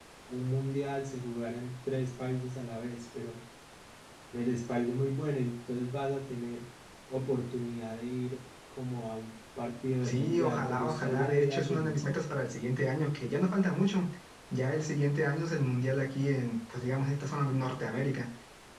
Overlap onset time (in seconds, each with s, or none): 10.0 s